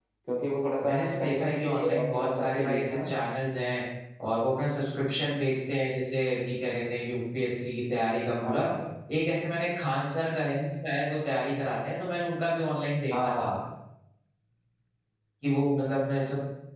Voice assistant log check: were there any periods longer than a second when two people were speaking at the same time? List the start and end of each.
0.8-3.0

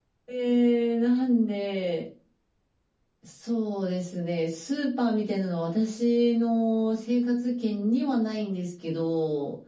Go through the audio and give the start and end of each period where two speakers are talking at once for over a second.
none

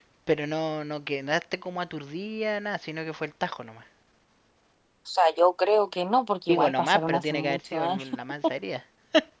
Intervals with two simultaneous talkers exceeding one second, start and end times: 6.5-8.1

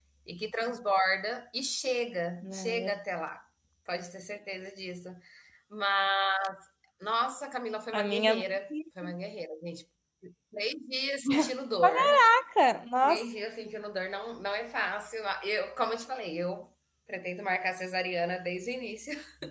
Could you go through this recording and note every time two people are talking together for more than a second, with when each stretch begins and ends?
none

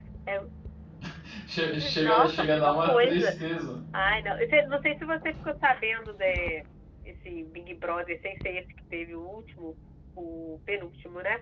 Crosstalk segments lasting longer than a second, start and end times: 1.9-3.3

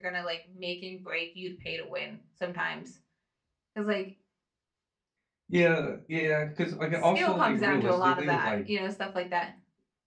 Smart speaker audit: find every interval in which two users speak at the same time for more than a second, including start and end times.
6.9-8.6

